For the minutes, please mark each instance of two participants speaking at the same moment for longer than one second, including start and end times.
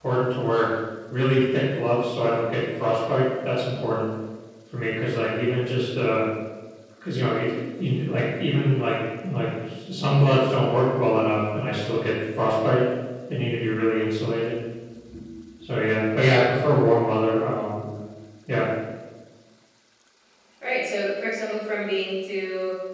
none

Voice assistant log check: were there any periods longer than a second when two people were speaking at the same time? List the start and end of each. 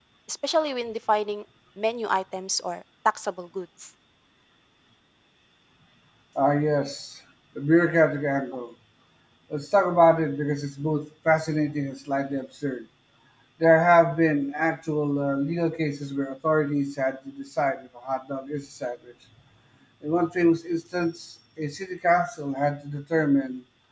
none

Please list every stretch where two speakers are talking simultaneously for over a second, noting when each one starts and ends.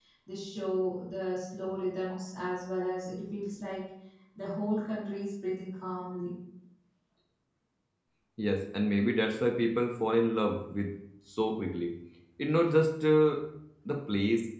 none

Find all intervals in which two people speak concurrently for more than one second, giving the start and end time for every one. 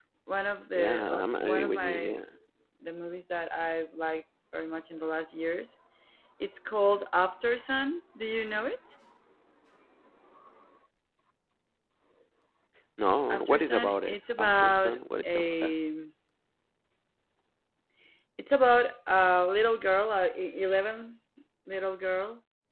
0.8-2.2, 13.3-15.7

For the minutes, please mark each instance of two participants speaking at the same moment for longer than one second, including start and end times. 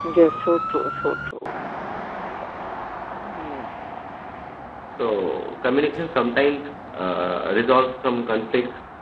none

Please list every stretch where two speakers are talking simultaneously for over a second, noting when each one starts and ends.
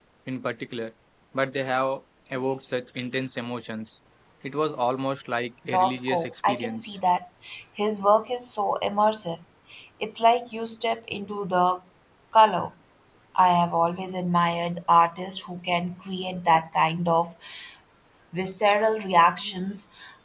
5.7-6.9

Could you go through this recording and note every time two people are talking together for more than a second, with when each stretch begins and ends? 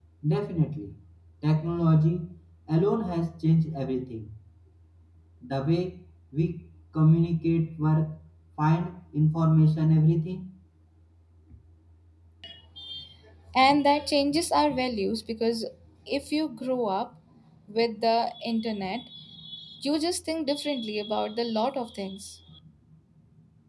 none

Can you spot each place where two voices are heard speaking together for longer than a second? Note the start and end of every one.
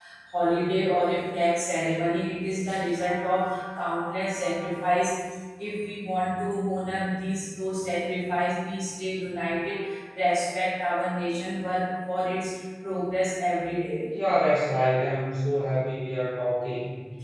none

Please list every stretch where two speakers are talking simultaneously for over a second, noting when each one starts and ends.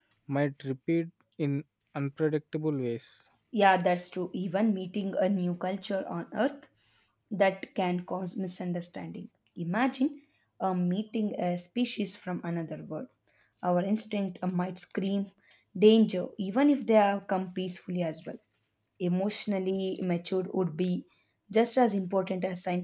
none

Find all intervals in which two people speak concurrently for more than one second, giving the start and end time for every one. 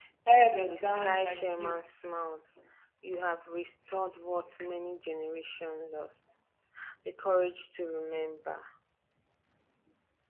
0.6-1.9

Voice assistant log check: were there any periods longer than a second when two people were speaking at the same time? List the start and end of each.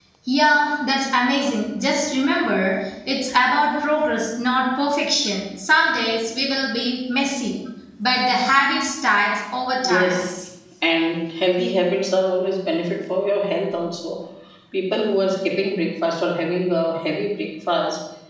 none

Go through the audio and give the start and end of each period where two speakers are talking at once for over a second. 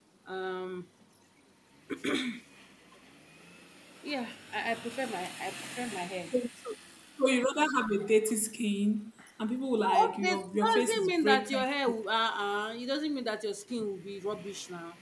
9.8-11.7

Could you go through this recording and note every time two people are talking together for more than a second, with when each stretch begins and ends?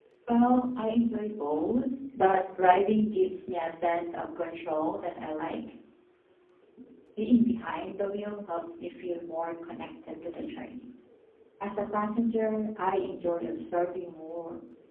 none

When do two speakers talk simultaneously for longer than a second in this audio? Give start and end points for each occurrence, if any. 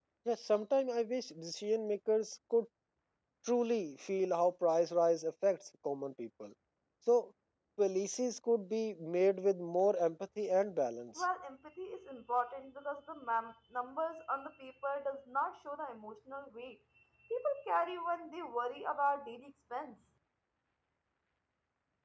none

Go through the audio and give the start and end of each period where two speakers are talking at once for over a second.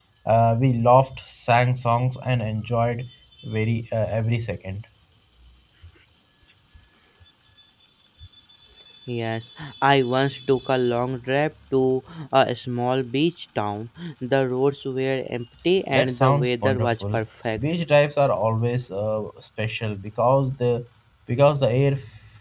15.9-17.2

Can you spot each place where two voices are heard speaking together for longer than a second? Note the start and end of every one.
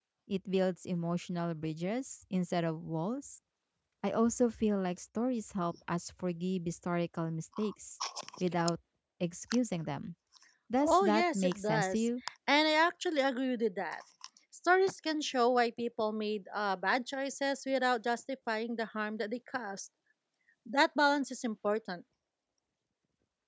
10.8-12.1

